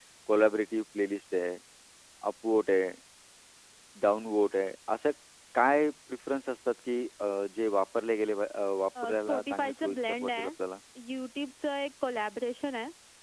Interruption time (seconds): 8.9 s

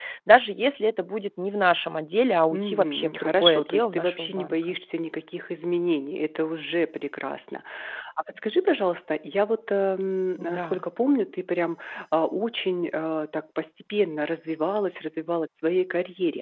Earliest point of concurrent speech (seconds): 2.5 s

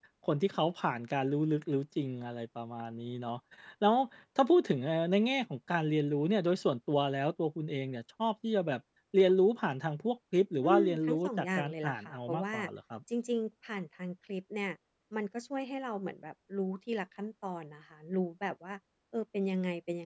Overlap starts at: 10.6 s

